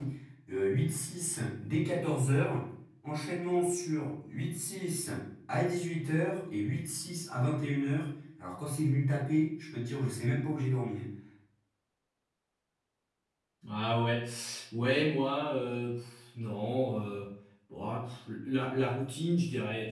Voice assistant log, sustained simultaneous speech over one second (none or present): none